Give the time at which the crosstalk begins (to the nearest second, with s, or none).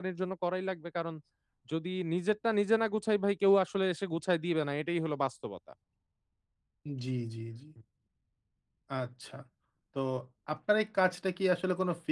none